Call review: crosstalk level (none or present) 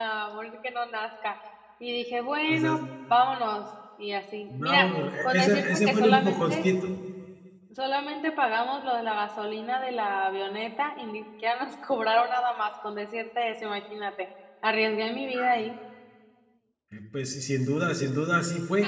present